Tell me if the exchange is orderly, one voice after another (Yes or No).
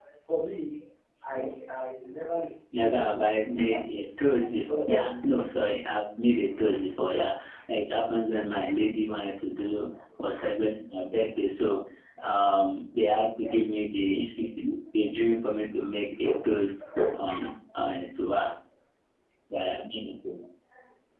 No